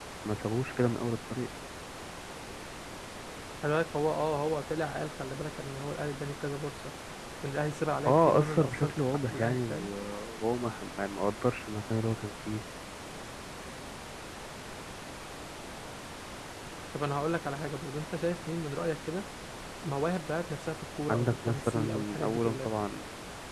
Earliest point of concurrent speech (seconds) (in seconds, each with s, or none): 8.1 s